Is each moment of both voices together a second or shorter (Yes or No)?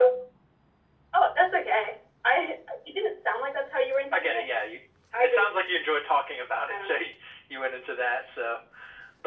Yes